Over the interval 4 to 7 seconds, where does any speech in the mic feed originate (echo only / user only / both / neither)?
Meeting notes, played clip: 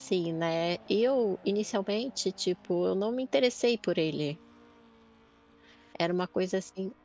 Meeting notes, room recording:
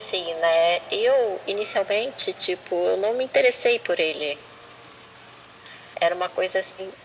echo only